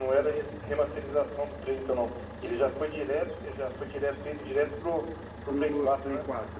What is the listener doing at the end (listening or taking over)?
taking over